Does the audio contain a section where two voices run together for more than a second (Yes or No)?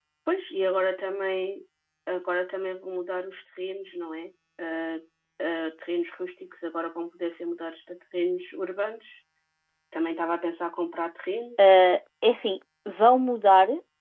No